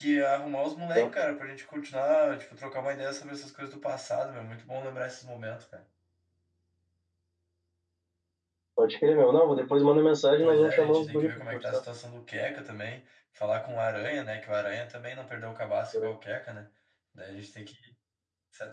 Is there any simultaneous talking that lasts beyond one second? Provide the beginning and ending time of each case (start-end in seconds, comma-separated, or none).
10.4-11.8